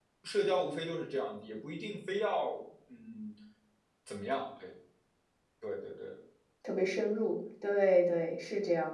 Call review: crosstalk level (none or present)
none